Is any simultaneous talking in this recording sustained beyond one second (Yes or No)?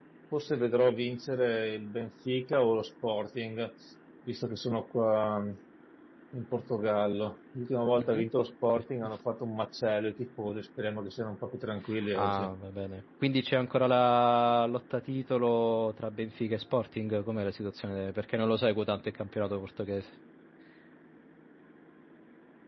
No